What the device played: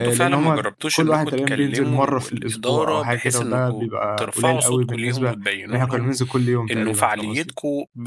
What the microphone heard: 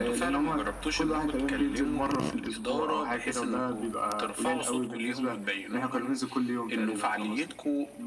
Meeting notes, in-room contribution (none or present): none